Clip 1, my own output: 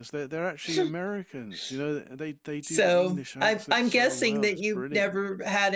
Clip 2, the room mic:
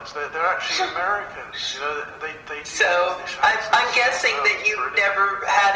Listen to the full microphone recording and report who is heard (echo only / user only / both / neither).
echo only